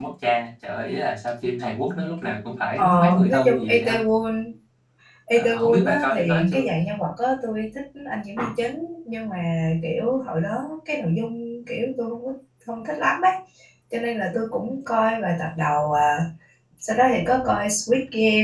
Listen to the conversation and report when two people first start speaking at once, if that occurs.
2.8 s

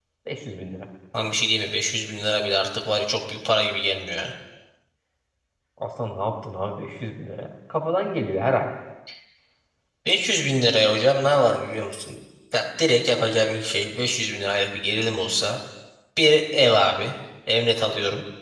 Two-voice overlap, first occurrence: none

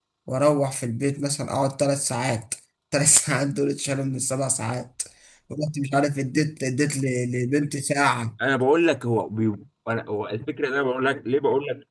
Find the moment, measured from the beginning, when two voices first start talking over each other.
none

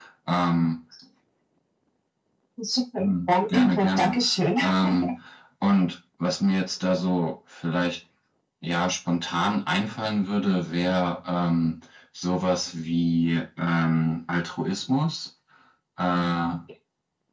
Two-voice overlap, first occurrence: 3.0 s

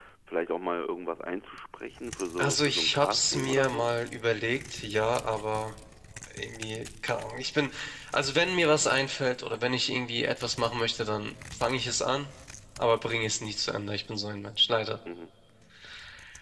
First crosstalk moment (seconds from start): 2.4 s

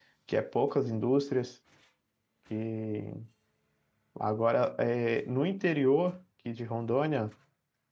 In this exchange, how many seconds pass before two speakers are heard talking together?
none

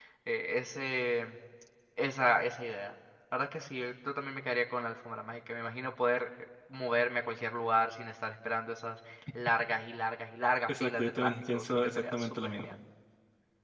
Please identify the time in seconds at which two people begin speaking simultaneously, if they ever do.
10.7 s

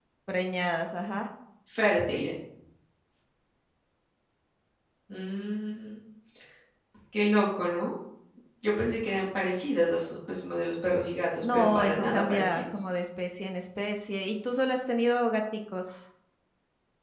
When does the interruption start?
11.4 s

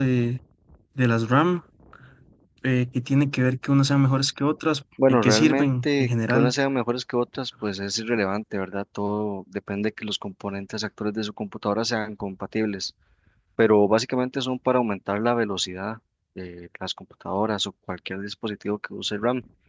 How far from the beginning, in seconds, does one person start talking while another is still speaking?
5.0 s

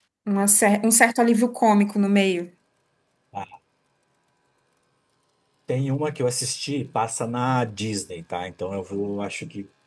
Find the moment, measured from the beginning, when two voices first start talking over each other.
none

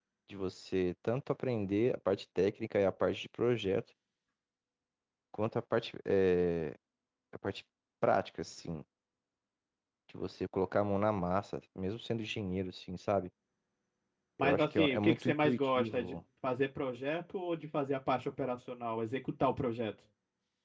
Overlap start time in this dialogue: 14.4 s

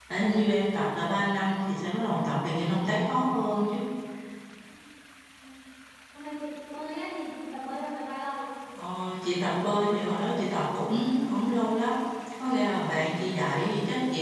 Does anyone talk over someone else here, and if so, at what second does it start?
none

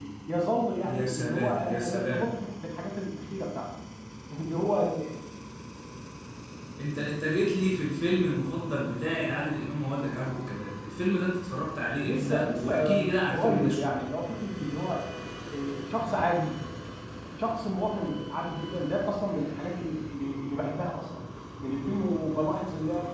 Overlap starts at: 0.8 s

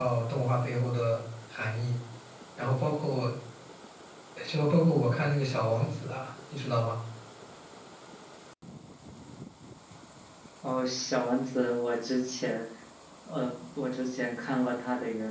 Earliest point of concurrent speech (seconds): none

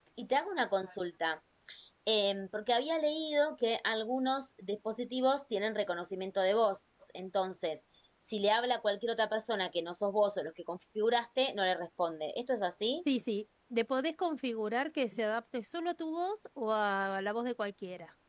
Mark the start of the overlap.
none

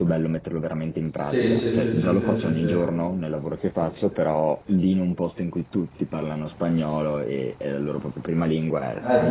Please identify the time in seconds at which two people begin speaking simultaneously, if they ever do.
1.2 s

